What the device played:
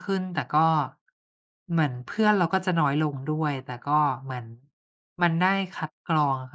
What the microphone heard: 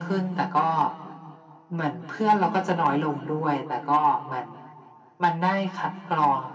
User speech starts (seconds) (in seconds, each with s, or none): none